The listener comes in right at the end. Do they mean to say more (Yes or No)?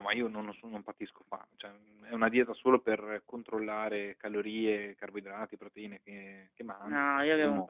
Yes